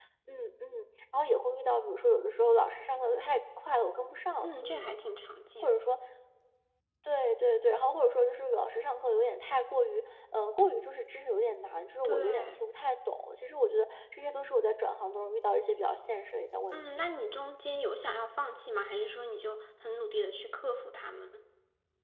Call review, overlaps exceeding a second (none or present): none